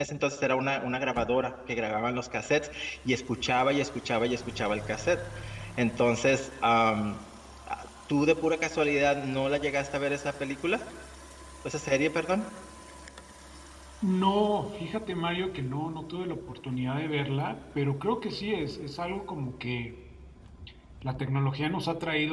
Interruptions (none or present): none